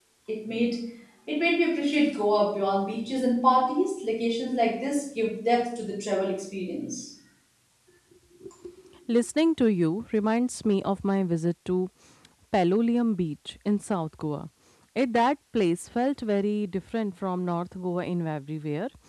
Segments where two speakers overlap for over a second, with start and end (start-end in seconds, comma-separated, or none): none